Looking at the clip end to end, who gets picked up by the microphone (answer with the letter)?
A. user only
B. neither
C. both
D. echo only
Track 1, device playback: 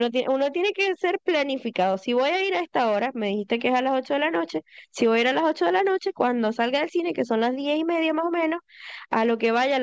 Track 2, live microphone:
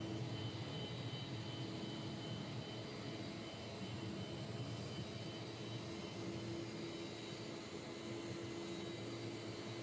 B